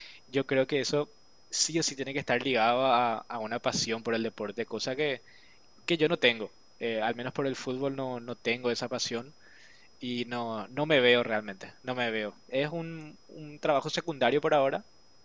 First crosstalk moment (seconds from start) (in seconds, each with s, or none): none